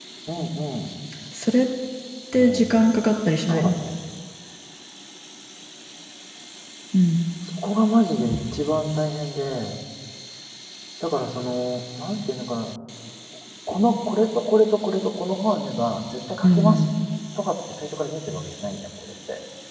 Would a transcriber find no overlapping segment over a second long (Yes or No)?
Yes